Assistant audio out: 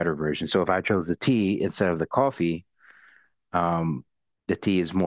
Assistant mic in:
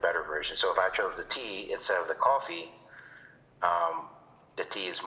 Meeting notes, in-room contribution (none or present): none